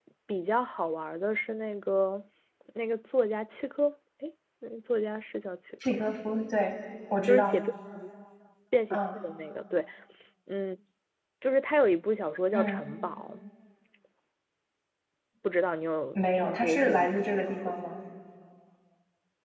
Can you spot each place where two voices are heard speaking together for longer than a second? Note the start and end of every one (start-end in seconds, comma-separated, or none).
16.2-17.5